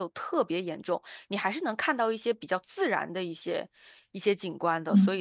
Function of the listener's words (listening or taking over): taking over